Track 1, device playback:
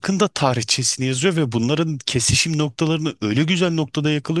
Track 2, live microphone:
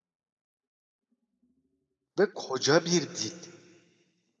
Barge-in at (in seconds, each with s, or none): 2.2 s